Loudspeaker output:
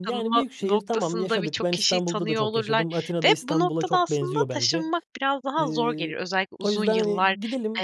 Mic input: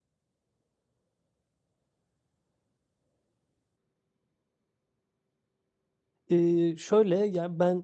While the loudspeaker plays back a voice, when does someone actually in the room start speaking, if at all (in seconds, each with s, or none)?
6.3 s